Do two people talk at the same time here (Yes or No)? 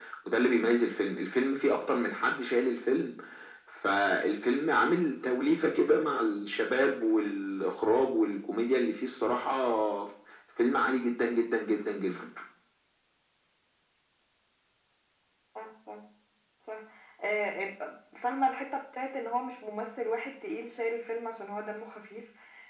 No